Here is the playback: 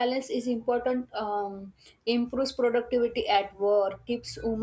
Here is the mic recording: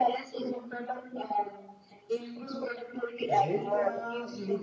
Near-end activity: present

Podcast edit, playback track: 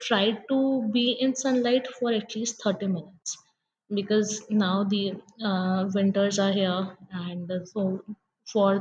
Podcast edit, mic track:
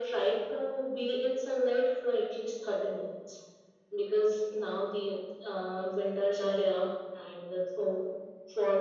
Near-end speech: none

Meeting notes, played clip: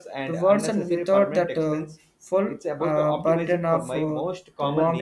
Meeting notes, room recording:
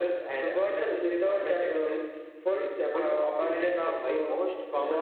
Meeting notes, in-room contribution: none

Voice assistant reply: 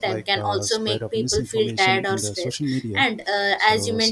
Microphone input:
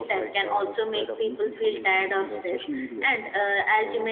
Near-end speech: none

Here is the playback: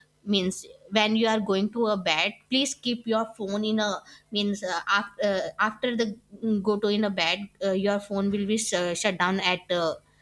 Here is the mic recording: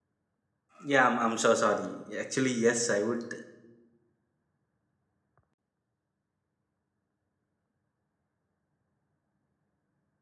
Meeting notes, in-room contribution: present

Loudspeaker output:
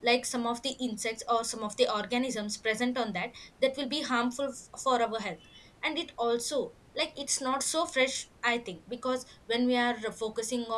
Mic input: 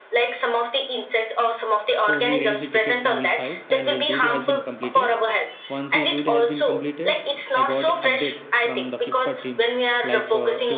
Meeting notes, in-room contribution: present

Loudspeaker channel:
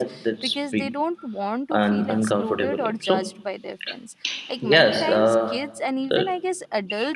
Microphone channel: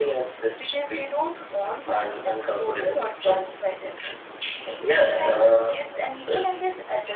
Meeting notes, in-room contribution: none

